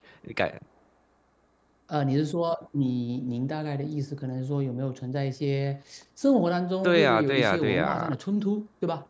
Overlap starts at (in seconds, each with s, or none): 6.8 s